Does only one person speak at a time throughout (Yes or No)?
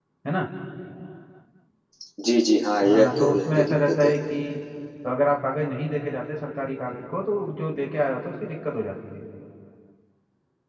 No